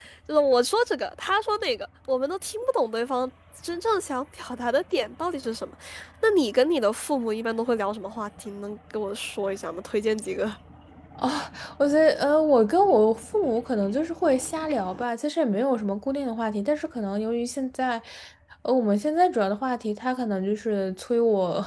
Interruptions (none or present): none